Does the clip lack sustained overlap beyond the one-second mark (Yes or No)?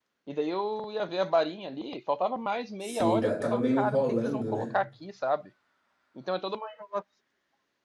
No